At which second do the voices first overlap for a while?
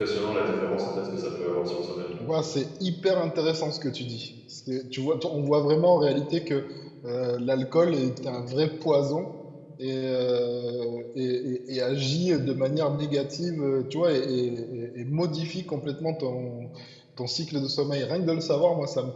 none

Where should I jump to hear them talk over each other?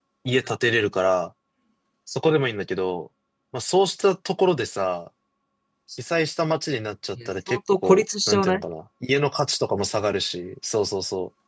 7 s

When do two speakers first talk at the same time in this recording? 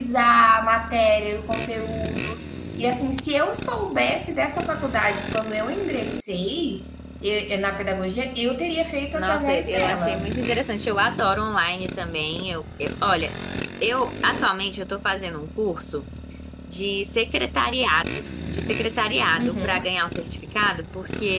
9 s

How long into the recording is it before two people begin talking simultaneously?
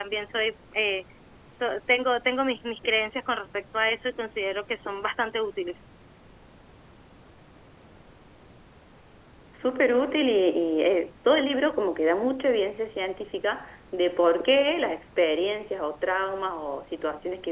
none

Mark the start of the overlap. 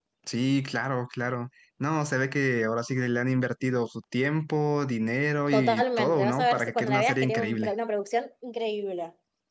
6 s

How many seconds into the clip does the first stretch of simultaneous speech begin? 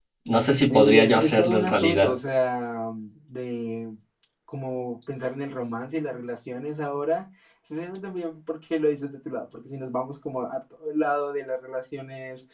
1 s

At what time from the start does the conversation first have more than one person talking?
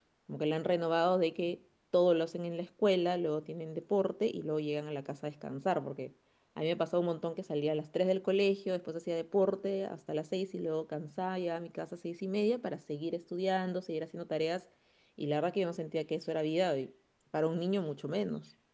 none

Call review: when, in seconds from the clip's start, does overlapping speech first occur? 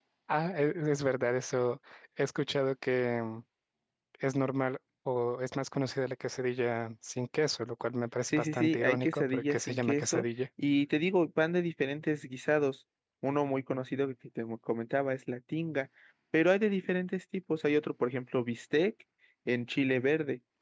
8 s

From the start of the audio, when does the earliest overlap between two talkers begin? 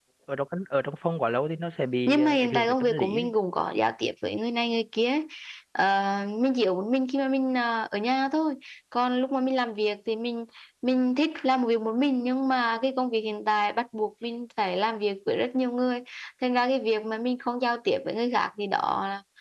2 s

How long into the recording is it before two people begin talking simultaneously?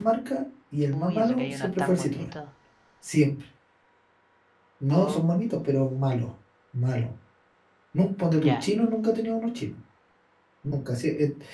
1 s

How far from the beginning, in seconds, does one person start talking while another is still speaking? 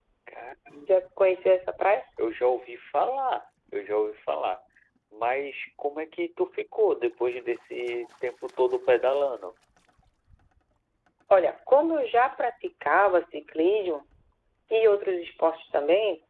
none

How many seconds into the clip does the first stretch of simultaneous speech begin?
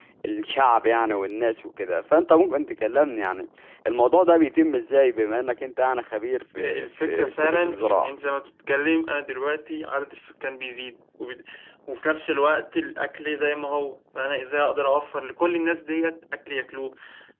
7 s

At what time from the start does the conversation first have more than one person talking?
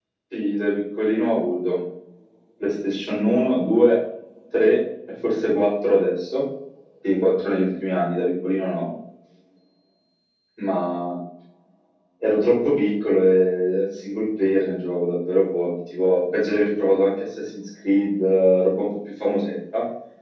none

